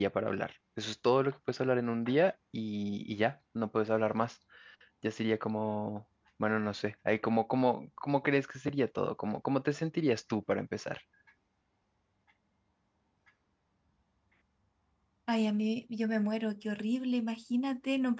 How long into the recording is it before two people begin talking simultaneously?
none

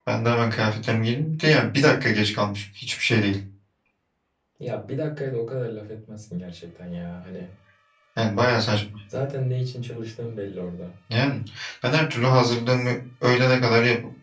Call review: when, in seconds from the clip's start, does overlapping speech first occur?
none

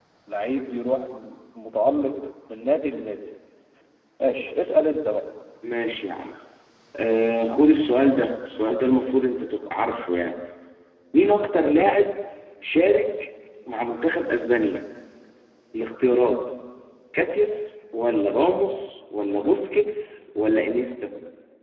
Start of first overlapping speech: none

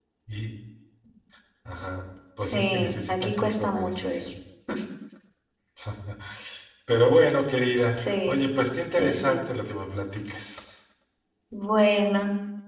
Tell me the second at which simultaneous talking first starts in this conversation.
2.4 s

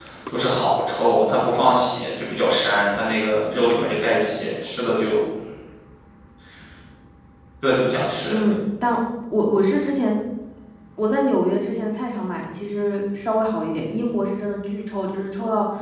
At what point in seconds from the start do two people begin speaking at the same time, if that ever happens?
none

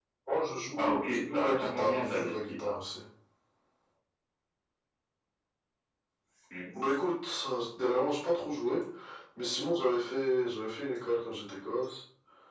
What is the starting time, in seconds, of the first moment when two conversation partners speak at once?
0.8 s

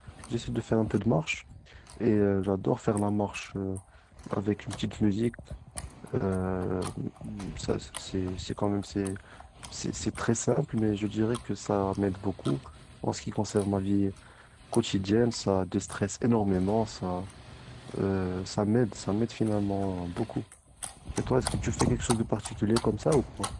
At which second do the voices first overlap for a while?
none

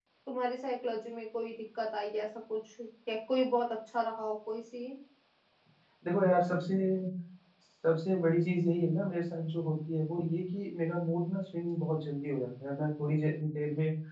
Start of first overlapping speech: none

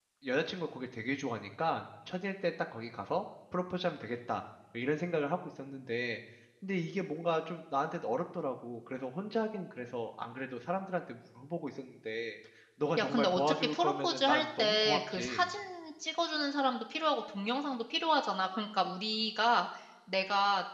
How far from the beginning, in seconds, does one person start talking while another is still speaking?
13.0 s

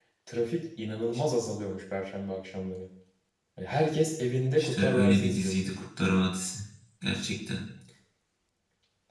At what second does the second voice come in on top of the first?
4.6 s

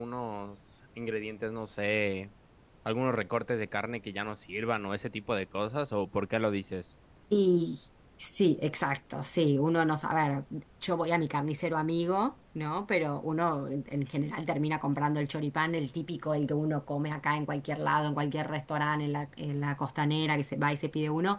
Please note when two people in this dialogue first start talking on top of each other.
none

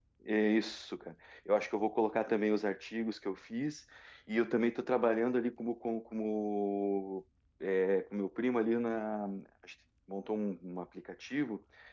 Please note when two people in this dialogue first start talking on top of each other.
none

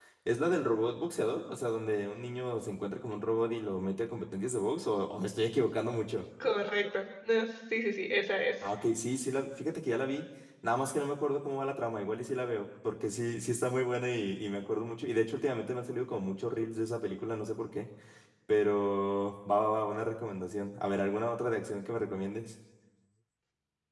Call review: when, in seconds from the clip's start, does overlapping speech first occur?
none

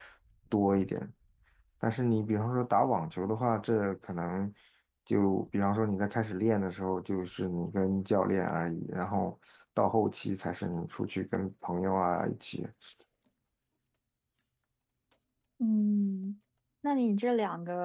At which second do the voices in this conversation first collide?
none

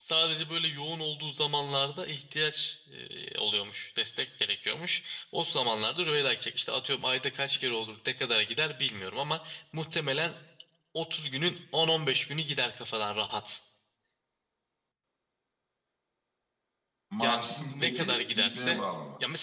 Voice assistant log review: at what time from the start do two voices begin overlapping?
17.2 s

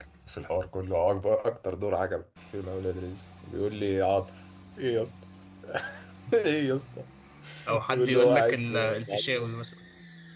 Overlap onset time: 7.9 s

